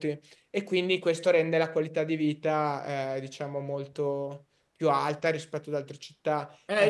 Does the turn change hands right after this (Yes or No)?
Yes